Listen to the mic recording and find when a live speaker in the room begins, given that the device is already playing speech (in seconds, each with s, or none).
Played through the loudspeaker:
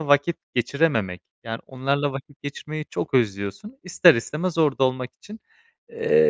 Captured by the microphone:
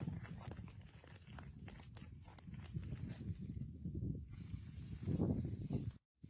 none